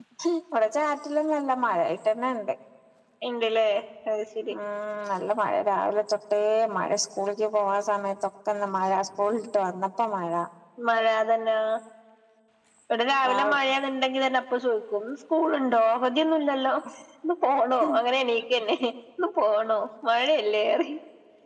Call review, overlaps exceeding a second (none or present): none